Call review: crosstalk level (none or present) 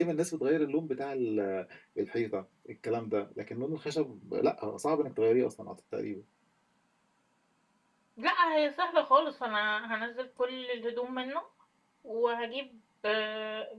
none